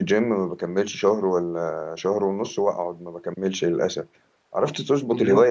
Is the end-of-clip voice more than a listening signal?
No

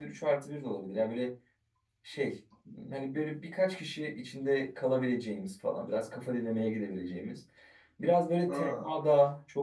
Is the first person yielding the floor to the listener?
No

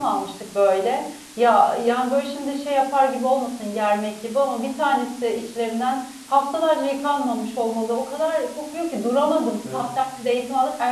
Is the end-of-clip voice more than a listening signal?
No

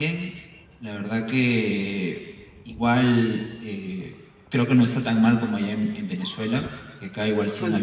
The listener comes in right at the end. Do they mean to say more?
No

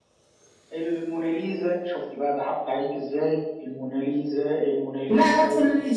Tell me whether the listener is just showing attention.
No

